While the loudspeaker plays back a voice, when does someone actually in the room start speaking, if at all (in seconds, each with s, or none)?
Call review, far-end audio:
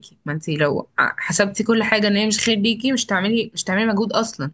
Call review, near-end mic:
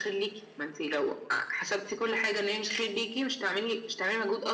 none